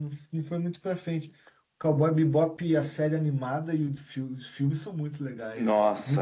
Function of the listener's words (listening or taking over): taking over